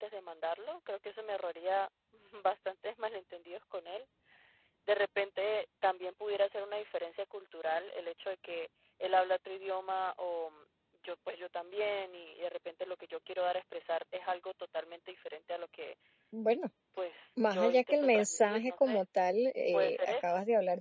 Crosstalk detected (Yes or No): Yes